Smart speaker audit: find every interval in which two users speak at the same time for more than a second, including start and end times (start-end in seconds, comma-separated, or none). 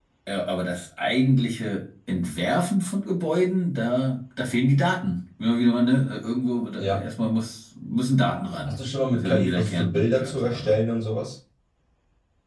9.1-10.8